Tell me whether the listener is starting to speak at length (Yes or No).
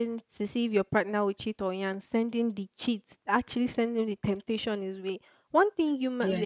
No